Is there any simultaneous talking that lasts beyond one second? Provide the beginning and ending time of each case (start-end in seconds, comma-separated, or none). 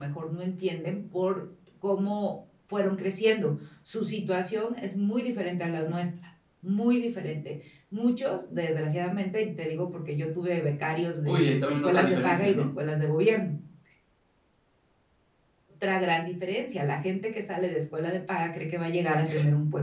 11.2-12.7